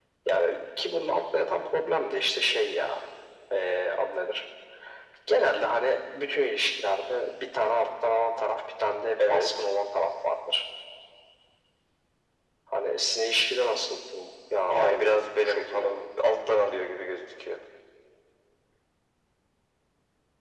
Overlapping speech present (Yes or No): Yes